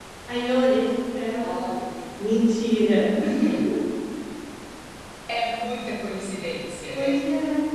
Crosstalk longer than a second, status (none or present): none